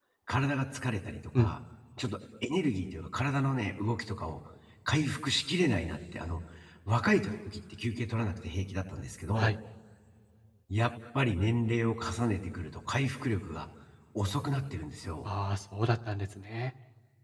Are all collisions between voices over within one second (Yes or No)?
Yes